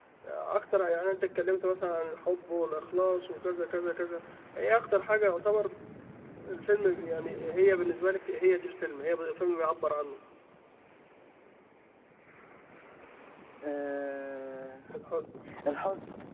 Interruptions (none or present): none